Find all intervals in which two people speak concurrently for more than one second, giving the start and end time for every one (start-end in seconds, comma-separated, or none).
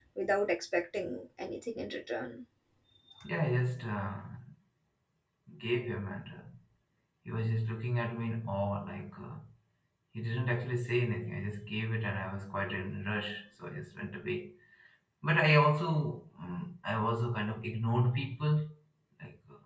none